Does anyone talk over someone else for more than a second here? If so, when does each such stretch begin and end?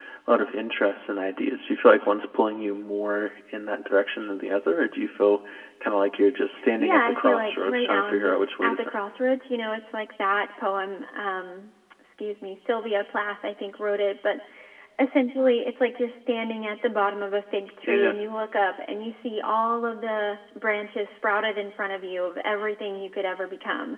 6.8-8.9

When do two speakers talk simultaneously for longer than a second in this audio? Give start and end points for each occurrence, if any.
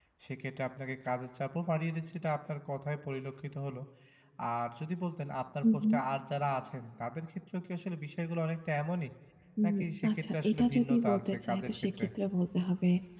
10.2-12.0

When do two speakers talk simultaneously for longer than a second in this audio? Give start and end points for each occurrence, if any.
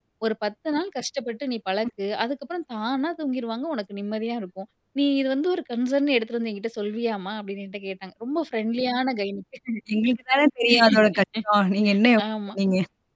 none

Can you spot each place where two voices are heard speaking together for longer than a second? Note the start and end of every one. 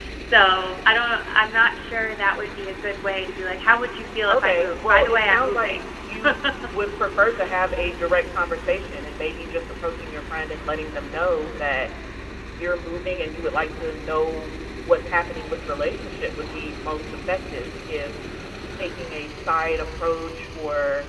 4.3-5.8

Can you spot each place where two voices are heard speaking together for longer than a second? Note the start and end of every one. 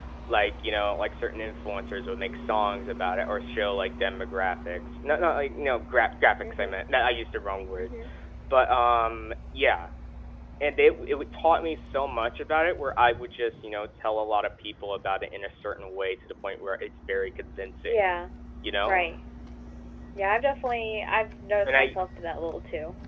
none

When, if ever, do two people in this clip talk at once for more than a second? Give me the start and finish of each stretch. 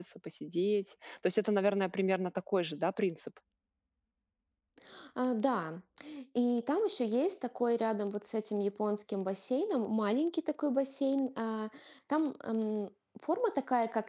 none

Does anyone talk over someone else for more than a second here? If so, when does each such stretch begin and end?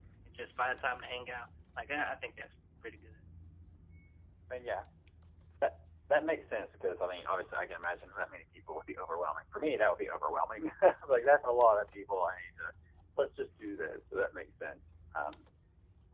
none

